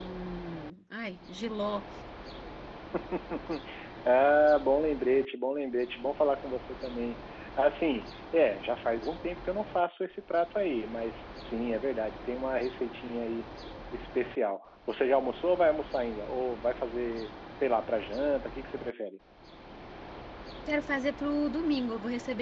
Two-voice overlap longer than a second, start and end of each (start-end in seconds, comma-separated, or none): none